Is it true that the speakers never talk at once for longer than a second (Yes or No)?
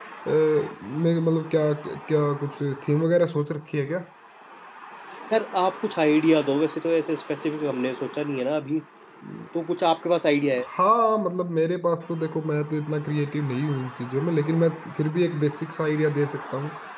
Yes